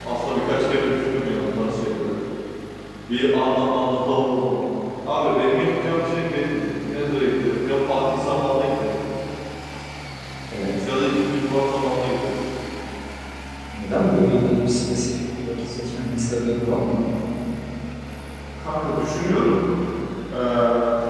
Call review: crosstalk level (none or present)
none